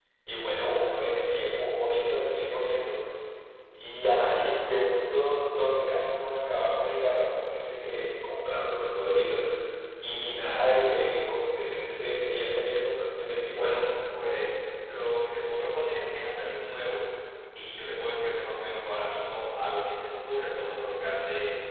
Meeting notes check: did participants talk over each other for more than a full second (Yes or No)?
No